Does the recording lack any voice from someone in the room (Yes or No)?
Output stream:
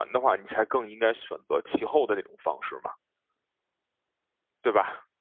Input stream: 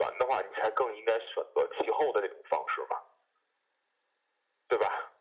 Yes